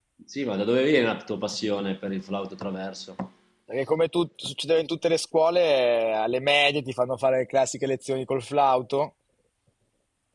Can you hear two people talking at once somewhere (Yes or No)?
No